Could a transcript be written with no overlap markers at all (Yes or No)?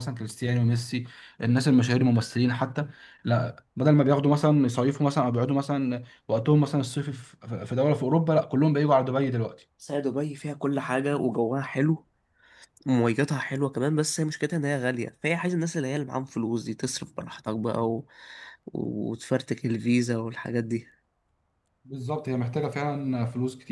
Yes